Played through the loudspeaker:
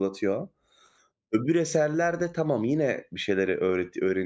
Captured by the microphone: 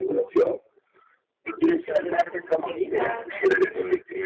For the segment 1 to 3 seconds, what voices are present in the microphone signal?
both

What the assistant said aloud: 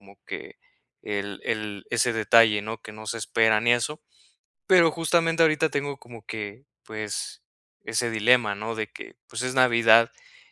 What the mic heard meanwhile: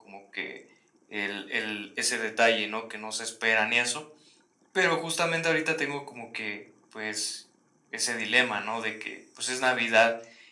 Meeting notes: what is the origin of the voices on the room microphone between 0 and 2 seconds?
echo only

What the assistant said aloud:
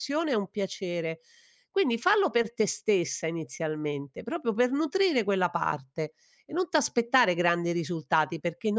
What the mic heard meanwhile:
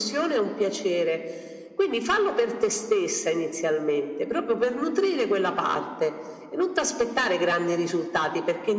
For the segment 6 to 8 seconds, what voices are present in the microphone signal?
echo only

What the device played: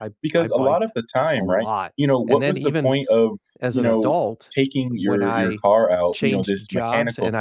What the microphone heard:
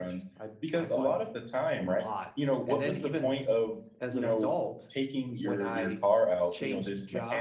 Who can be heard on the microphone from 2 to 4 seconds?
echo only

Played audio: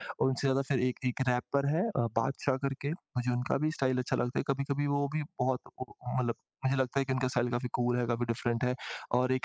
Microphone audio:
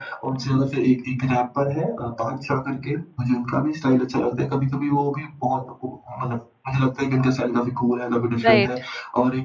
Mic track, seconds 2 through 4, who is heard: echo only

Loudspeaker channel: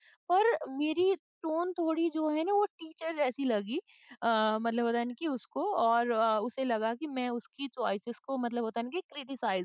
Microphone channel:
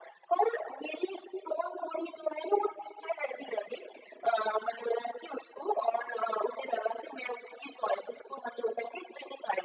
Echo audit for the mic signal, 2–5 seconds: echo only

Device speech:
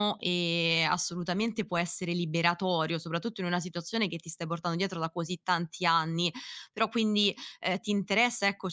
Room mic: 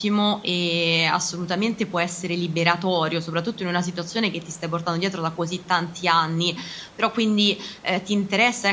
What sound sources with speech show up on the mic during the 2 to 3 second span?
echo only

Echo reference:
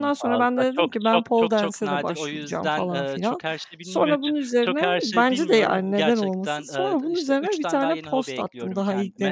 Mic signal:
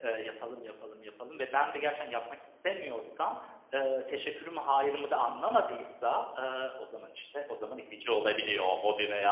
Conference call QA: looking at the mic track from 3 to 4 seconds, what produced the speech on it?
user only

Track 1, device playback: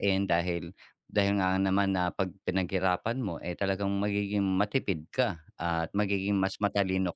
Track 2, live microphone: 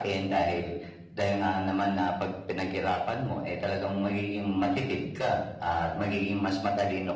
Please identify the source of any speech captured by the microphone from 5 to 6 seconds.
echo only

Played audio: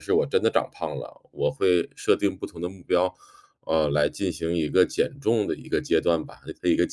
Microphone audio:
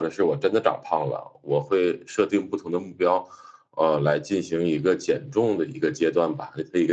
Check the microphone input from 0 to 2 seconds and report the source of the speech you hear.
echo only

